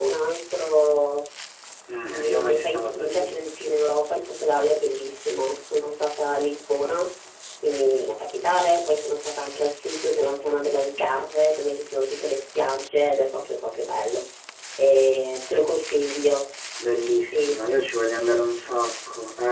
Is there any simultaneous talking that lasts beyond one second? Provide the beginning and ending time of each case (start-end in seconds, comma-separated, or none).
1.9-3.3